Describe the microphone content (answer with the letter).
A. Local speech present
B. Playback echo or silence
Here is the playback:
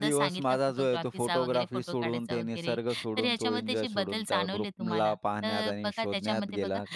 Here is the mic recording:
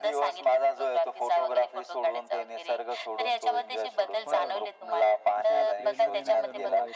A